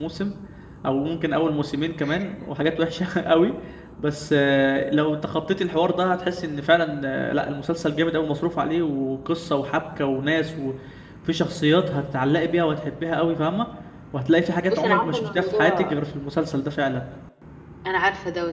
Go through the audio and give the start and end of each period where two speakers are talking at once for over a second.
14.7-15.9

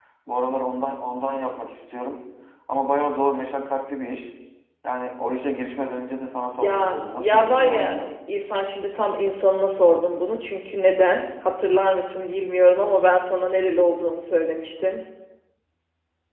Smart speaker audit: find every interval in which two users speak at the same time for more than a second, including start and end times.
6.6-8.1

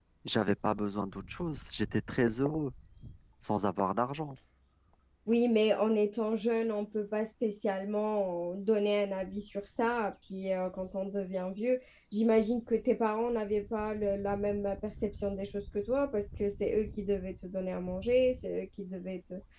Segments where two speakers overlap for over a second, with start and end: none

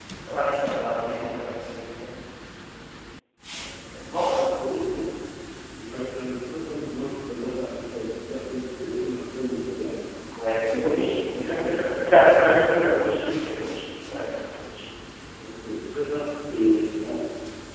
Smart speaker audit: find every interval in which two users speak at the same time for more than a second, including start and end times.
10.7-12.2

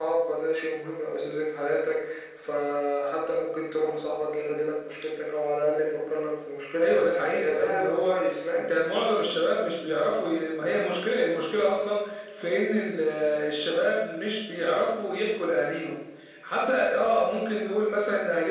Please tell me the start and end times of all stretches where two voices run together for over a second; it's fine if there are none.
6.8-8.2

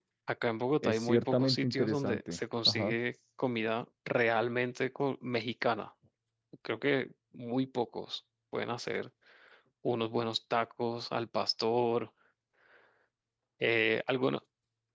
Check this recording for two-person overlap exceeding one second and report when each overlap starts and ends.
0.8-3.0

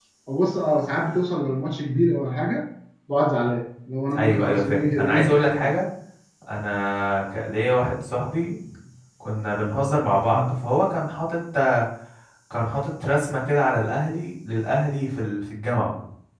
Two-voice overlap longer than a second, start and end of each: 4.2-5.7

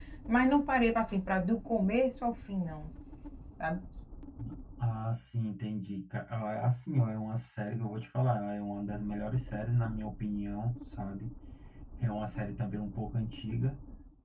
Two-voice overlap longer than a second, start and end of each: none

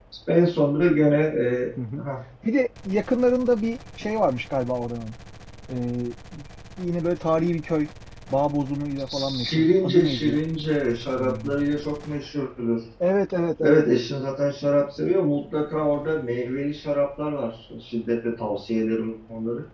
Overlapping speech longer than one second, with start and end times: 9.1-10.4

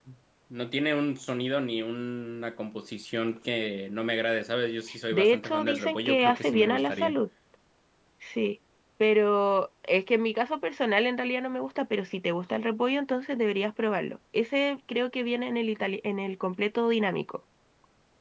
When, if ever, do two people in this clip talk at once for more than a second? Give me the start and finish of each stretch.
5.1-7.2

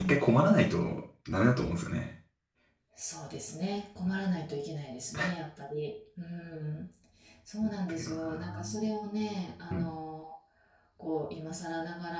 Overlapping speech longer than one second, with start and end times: 7.6-8.9

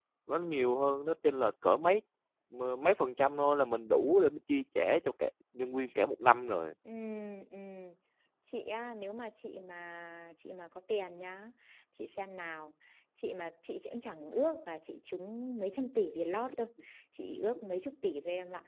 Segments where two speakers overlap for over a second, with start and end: none

